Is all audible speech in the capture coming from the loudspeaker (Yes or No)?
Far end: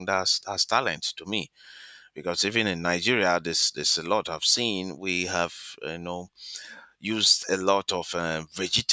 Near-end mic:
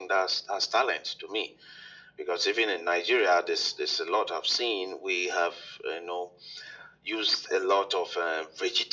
Yes